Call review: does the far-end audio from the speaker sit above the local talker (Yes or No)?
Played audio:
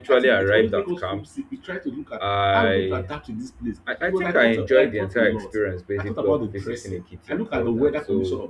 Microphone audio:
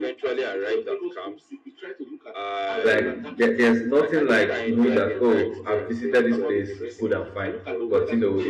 No